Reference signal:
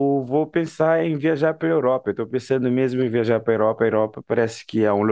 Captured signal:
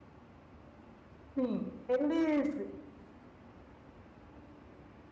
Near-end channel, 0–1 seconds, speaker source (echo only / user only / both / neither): neither